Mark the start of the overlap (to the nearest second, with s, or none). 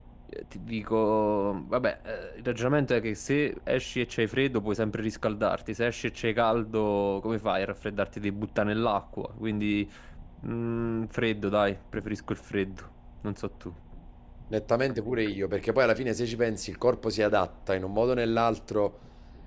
none